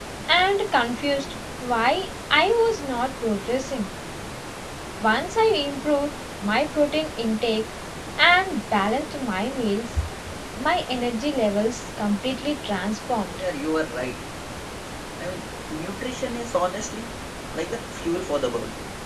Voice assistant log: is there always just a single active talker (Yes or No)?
Yes